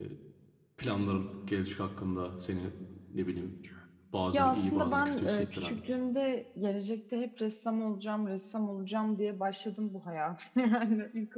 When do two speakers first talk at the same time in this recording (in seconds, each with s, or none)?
4.3 s